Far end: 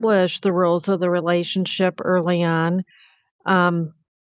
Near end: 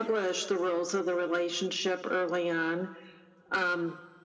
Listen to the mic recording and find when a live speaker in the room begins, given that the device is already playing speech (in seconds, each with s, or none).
none